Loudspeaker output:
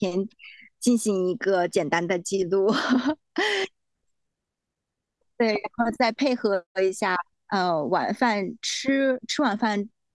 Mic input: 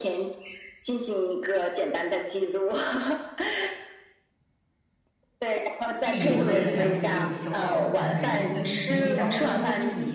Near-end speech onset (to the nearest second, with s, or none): 6 s